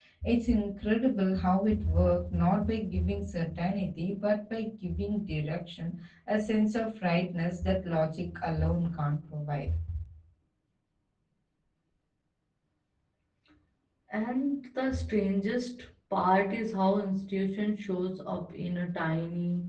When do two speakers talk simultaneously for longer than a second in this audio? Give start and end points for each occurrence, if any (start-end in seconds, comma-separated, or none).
none